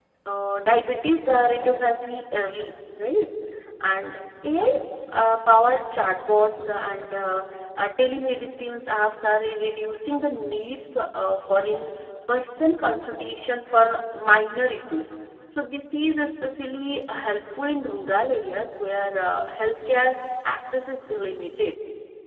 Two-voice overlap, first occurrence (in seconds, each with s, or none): none